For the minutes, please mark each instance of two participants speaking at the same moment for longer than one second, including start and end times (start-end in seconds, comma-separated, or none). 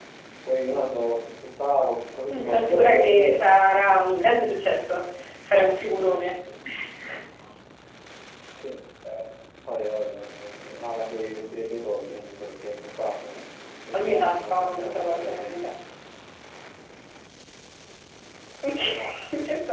2.3-3.5, 13.9-15.5